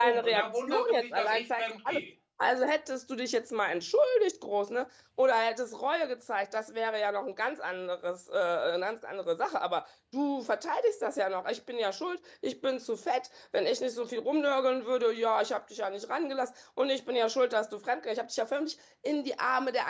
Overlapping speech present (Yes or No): Yes